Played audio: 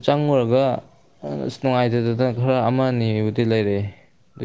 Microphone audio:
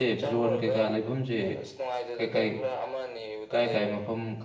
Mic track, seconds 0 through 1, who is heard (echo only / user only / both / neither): both